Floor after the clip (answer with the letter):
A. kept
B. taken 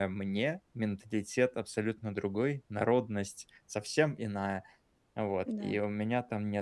A